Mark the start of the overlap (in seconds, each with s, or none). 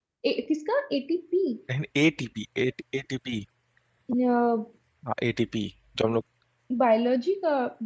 none